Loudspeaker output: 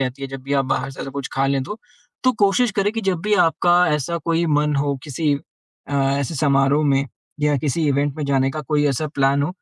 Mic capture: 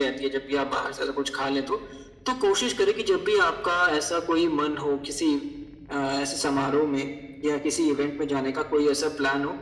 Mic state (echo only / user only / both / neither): echo only